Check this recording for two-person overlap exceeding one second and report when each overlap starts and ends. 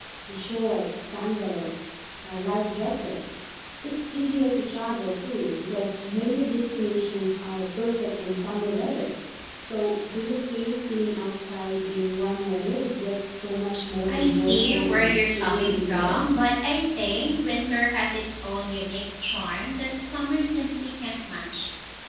14.1-16.4

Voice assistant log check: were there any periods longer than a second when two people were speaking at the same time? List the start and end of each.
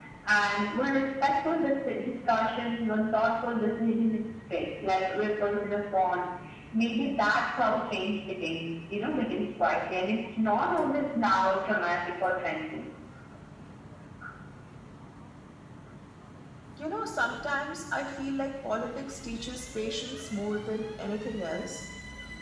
none

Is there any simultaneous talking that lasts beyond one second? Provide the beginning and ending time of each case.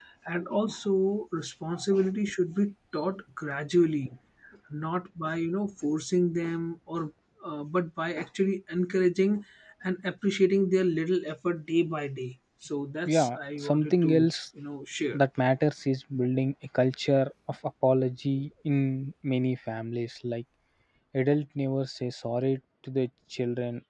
13.1-14.3

